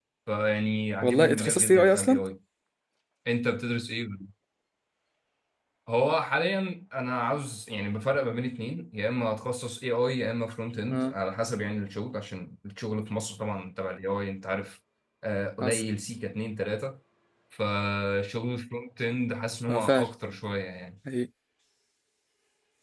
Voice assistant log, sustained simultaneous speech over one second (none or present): present